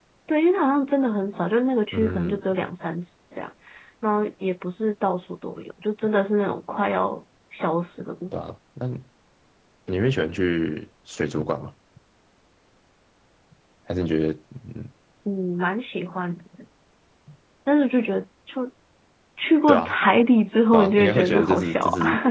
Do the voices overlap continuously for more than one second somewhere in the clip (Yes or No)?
Yes